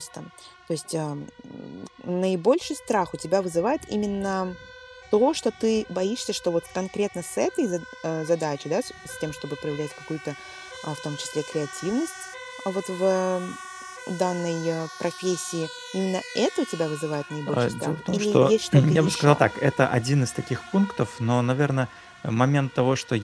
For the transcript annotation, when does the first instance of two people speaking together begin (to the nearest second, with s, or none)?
17 s